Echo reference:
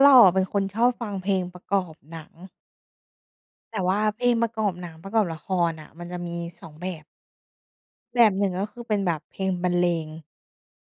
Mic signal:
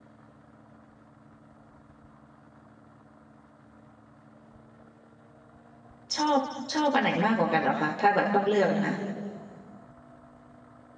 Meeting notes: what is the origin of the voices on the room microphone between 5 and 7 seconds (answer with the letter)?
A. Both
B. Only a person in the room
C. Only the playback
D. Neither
B